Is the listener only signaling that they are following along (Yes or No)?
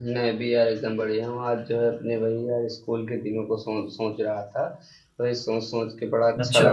Yes